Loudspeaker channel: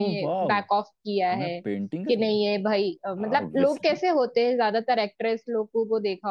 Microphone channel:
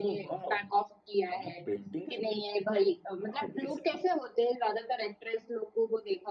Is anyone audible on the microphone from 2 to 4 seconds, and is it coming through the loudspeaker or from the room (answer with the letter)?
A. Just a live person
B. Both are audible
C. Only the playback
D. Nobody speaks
C